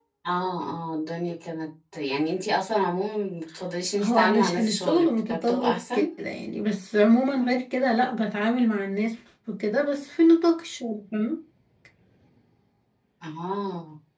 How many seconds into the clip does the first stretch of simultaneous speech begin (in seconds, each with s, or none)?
4.0 s